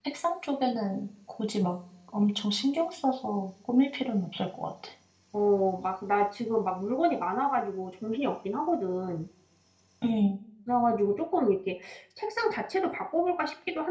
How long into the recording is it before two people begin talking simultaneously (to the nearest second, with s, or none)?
none